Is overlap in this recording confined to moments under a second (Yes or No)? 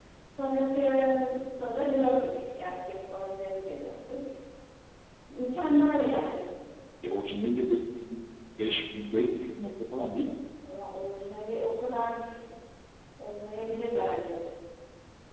Yes